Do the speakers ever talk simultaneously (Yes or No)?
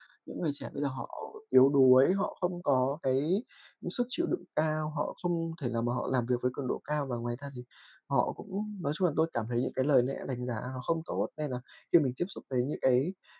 No